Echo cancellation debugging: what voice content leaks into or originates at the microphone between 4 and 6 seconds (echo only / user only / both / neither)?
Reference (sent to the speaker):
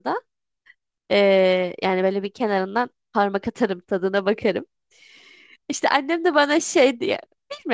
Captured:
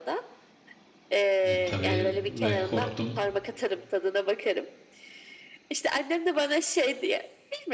echo only